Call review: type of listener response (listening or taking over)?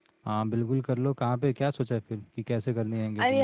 taking over